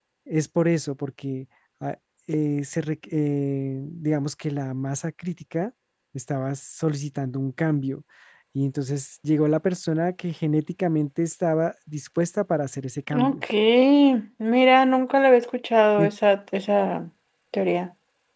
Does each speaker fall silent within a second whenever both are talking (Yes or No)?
Yes